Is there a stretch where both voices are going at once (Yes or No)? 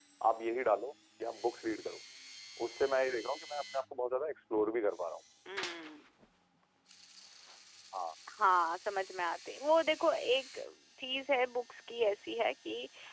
No